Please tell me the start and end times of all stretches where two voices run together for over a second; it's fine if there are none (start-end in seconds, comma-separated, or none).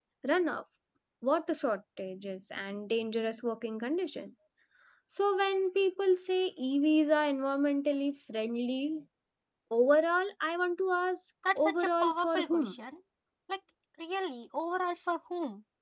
11.6-12.8